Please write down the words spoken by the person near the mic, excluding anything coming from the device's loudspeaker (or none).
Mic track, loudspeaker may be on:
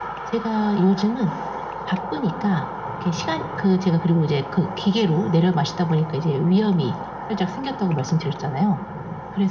none